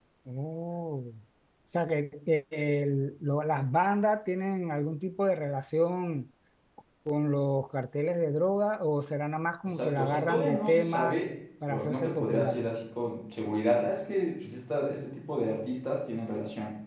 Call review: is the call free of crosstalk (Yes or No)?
No